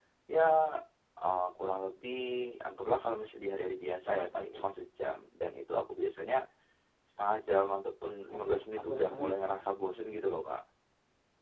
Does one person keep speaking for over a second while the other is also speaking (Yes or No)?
Yes